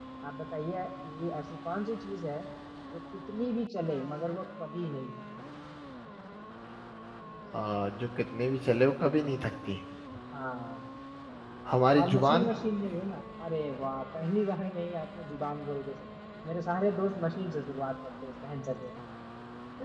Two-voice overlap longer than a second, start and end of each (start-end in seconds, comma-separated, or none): none